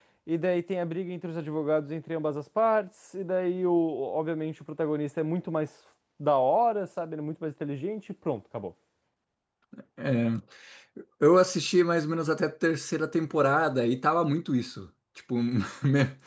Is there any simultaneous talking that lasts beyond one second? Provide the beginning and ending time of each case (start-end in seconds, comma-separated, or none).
none